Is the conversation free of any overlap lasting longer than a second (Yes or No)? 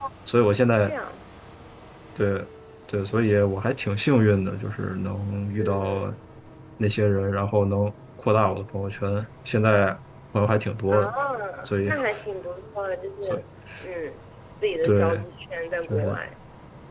Yes